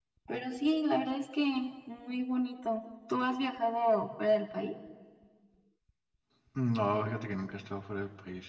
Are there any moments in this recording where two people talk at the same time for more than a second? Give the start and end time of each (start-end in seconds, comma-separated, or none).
none